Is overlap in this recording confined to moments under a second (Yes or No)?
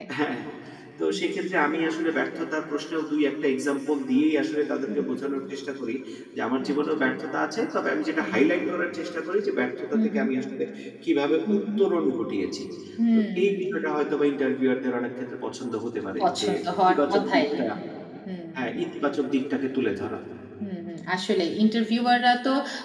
No